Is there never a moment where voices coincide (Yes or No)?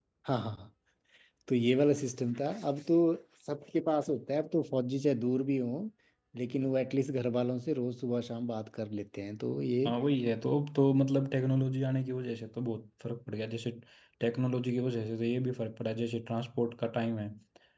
Yes